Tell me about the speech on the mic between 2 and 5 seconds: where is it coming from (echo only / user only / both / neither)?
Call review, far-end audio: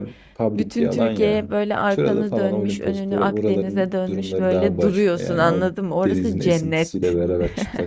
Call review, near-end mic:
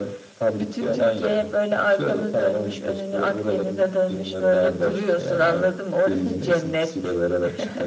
echo only